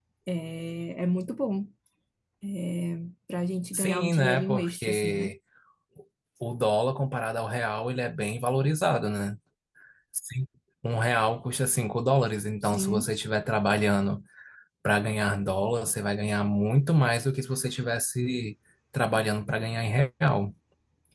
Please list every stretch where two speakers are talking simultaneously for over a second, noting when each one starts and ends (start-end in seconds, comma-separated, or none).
3.7-5.3